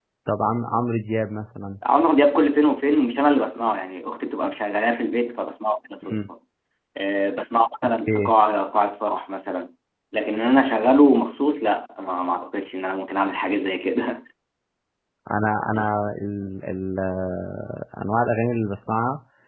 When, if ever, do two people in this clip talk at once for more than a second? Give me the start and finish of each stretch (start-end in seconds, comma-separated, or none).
none